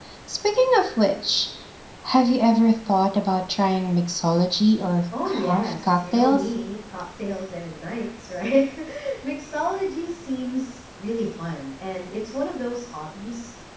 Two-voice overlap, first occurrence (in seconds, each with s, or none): 5.1 s